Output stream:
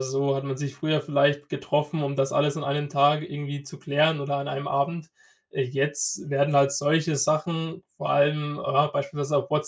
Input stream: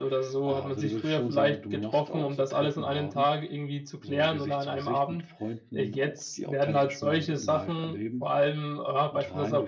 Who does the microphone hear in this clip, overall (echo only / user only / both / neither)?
both